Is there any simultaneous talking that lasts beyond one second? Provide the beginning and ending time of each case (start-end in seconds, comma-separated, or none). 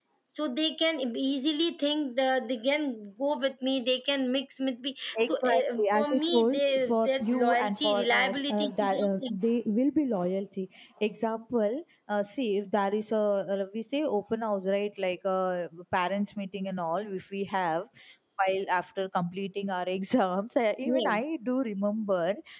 5.2-9.4